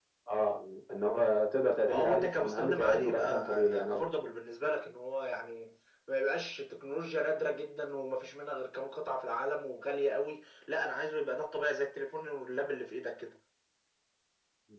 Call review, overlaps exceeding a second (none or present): present